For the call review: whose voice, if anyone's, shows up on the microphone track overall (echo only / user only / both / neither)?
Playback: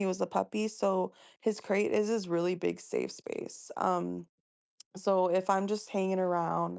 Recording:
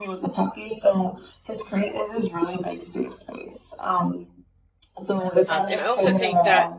both